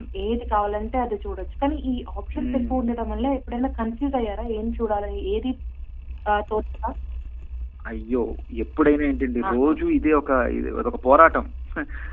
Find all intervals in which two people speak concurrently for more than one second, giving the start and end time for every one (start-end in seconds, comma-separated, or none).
none